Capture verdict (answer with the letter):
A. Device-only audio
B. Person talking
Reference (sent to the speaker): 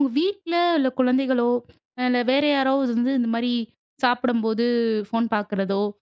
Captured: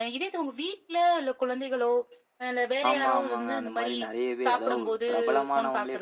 B